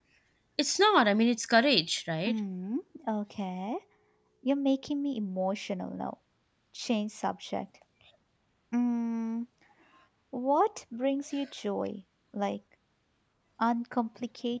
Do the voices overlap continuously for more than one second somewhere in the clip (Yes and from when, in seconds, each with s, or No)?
No